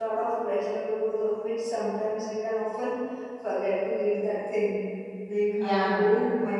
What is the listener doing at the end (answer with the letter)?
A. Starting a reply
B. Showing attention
B